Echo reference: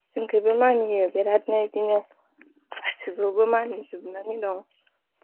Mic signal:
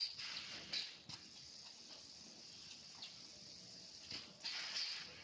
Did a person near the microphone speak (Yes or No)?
No